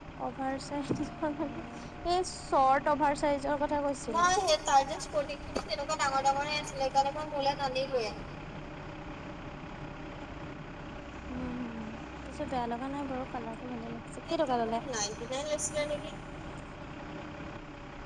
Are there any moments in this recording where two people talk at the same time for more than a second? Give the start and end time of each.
none

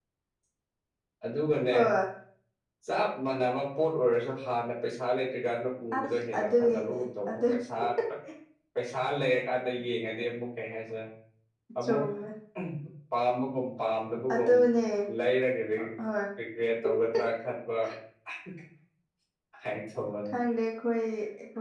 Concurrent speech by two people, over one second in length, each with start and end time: 5.9-7.4

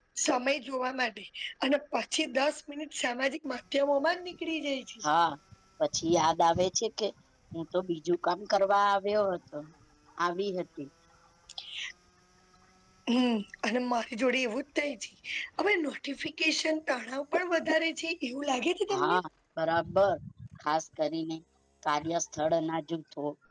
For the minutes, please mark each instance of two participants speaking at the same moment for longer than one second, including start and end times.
none

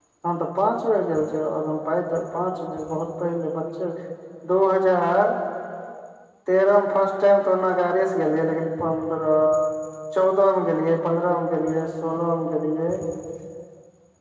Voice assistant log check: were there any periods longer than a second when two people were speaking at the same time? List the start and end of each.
none

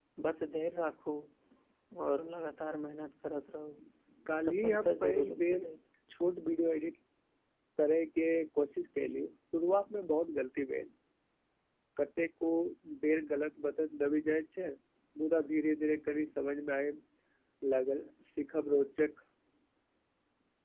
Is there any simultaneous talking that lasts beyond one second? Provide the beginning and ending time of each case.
4.4-5.7

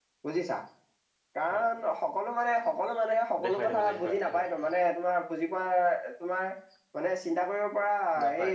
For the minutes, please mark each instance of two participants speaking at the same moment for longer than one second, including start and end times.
3.4-4.7

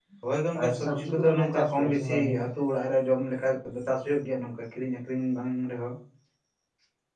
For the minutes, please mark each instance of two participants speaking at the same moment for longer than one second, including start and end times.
0.6-2.4

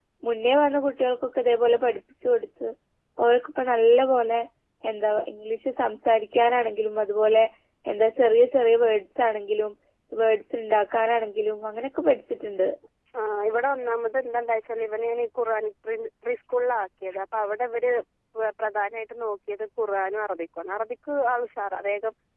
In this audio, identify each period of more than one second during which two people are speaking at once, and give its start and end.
none

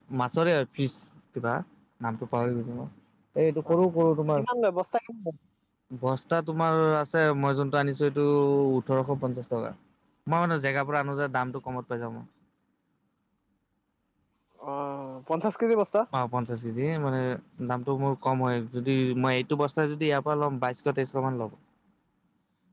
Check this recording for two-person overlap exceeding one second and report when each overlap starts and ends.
none

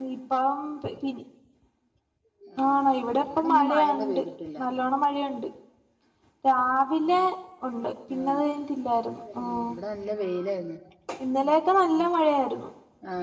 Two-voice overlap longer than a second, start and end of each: 2.6-4.2

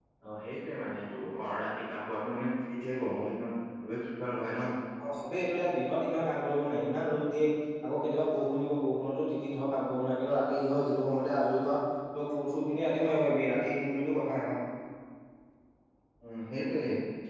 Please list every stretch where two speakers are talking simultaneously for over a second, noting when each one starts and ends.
none

